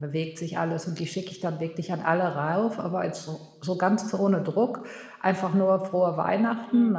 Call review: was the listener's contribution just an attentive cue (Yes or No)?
Yes